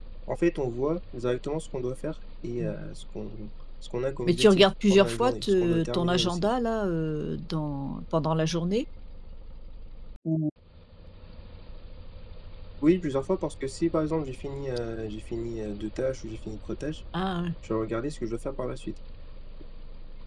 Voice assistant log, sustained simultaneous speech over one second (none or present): present